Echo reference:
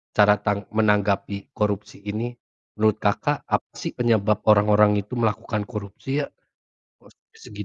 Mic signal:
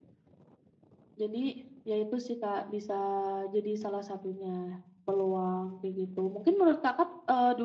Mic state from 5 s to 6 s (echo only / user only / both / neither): user only